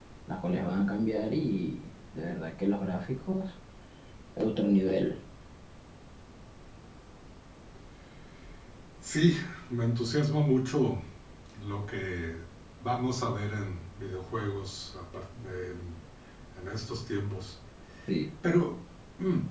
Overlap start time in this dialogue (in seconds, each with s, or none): none